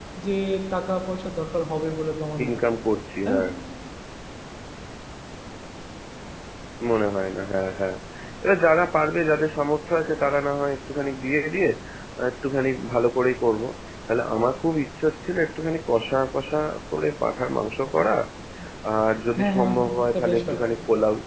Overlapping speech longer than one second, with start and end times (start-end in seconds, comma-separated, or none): 19.4-20.6